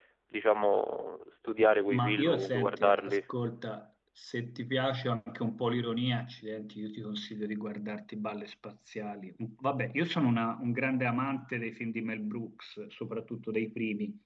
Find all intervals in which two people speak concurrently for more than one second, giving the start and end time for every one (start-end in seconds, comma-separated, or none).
1.9-3.2